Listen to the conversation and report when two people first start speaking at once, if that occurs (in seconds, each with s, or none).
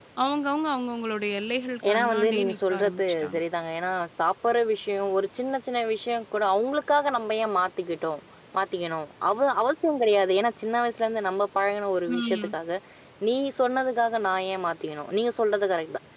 1.9 s